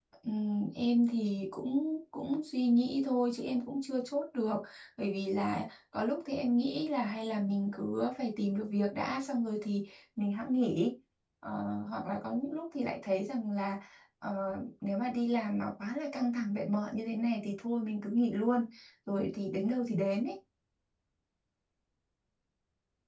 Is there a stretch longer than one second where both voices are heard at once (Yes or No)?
No